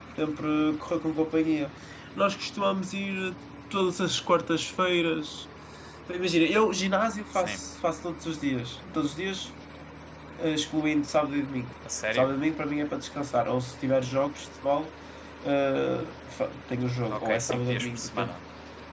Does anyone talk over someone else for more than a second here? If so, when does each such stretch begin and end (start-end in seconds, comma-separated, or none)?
17.1-18.4